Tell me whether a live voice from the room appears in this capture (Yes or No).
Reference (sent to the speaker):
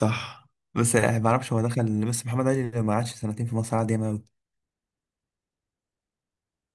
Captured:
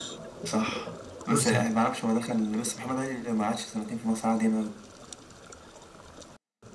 Yes